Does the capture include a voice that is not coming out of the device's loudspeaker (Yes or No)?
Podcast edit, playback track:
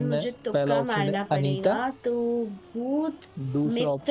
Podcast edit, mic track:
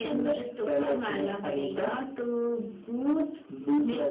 No